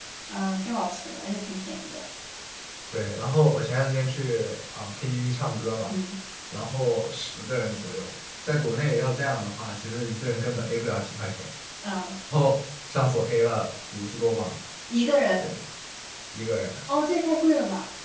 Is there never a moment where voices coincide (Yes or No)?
Yes